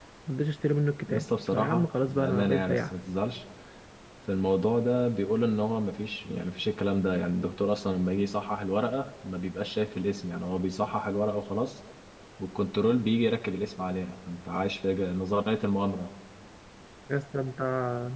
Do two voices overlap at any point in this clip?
Yes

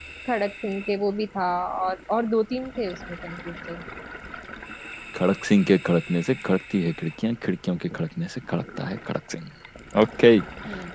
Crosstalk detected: No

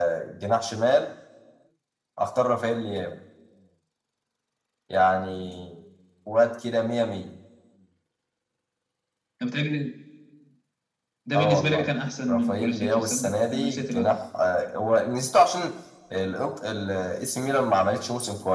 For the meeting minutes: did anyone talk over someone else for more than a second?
Yes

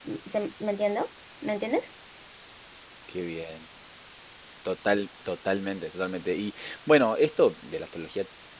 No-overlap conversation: Yes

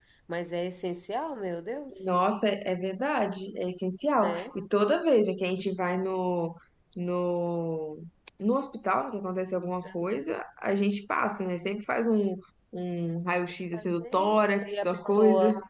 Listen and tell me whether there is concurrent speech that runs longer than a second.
Yes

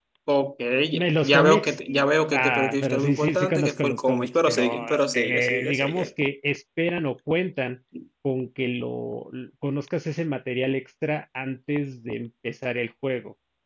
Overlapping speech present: Yes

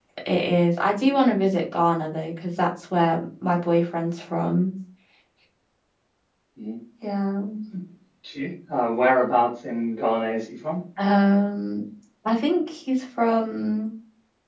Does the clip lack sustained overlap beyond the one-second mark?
Yes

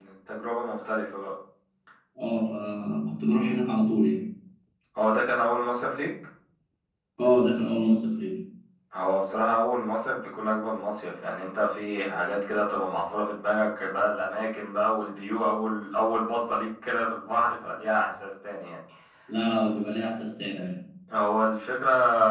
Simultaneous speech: No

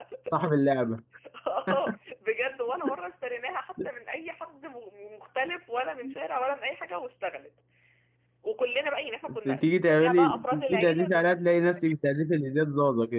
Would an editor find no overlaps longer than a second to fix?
No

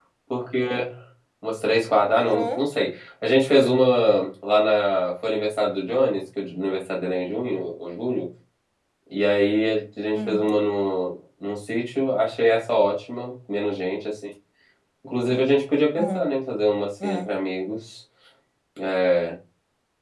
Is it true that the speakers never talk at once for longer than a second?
Yes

